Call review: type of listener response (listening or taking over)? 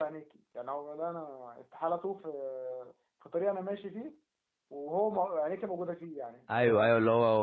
taking over